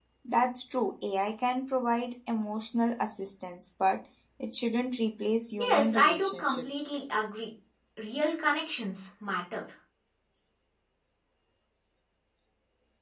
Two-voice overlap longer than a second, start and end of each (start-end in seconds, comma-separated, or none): 5.6-6.9